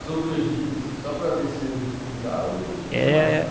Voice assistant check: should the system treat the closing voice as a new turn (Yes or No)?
Yes